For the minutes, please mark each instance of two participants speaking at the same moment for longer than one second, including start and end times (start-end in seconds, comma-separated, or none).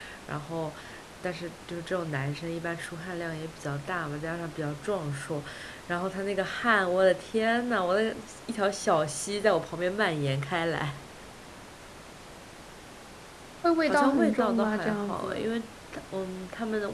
13.9-15.5